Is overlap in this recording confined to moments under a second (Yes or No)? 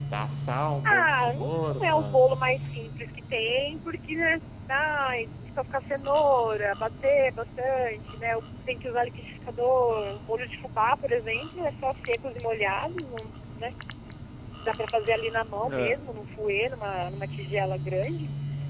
No